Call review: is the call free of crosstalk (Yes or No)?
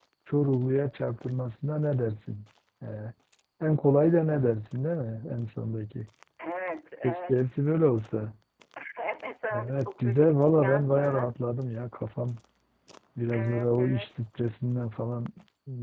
No